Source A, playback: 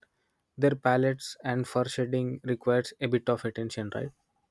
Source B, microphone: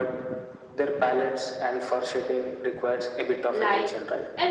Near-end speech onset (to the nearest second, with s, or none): 4 s